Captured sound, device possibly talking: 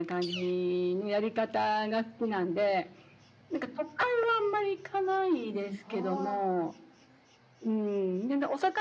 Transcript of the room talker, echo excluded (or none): はあ。